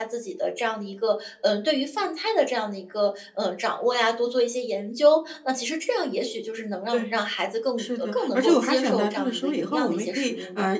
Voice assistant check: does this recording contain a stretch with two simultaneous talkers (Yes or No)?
Yes